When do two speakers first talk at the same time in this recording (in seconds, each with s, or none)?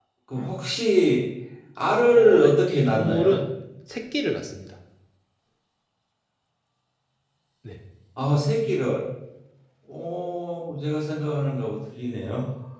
2.1 s